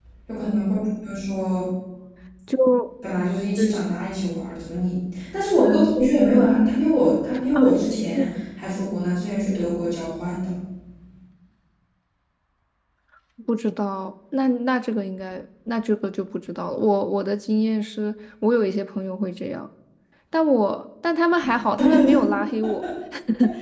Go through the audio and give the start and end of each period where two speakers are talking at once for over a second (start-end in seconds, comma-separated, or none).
none